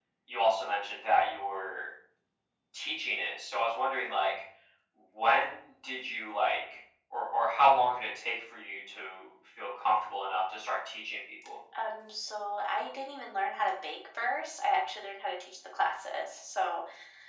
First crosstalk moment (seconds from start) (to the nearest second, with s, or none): none